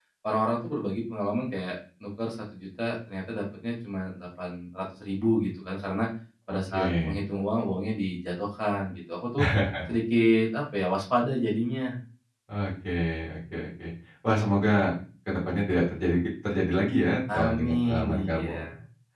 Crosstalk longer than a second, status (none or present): present